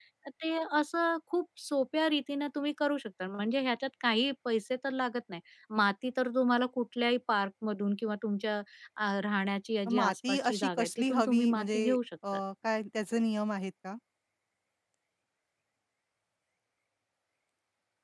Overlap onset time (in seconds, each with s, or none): 9.9 s